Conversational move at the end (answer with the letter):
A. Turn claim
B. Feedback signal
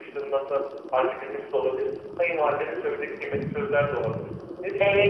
A